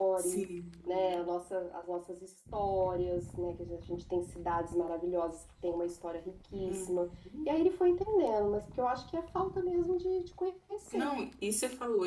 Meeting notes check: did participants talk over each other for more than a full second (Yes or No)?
No